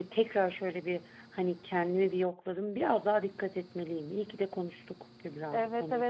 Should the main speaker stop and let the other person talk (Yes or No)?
Yes